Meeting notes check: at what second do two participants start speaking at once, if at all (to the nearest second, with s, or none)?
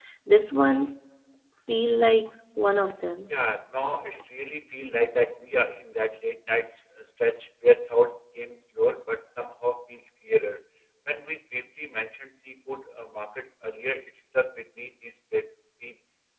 none